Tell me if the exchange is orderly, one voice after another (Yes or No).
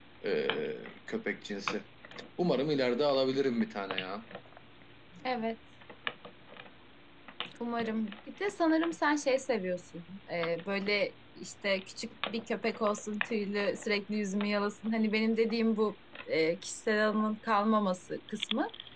Yes